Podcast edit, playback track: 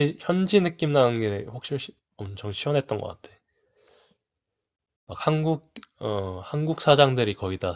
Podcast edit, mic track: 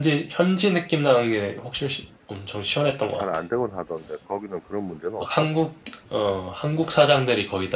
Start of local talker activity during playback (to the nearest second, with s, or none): 3 s